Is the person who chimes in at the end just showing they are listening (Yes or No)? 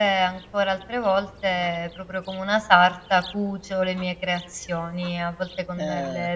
Yes